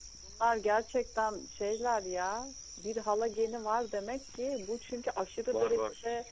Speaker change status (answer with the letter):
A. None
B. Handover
A